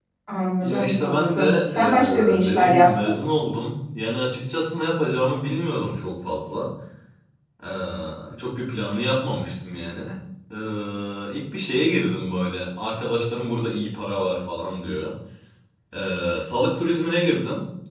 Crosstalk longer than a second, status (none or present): present